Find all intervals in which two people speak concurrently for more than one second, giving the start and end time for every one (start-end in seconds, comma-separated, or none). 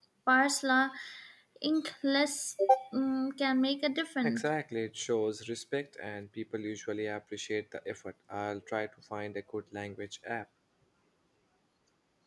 none